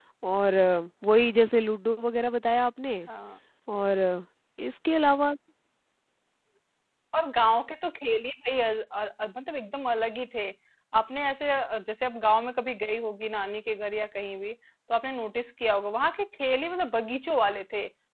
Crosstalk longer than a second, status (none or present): none